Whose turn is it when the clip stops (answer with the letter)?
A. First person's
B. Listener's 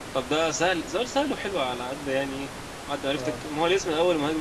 A